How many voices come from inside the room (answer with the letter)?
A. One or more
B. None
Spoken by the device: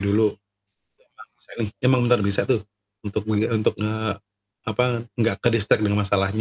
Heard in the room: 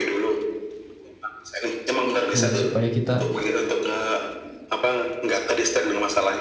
A